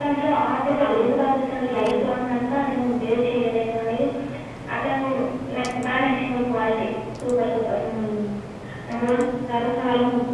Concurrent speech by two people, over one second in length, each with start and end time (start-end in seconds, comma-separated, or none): none